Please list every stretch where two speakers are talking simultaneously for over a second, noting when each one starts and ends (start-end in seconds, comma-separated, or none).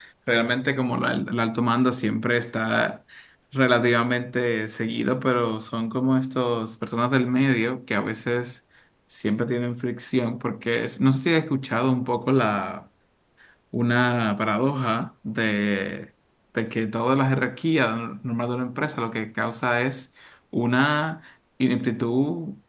none